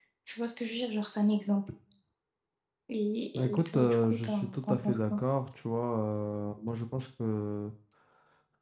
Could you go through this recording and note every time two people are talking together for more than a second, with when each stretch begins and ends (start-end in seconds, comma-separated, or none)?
3.4-5.2